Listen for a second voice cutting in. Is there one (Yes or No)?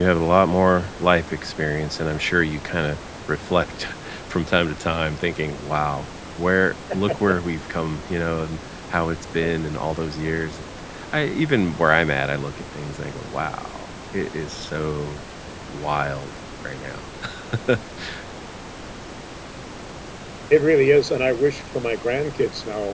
No